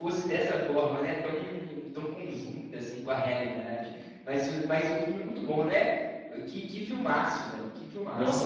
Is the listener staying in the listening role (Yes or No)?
No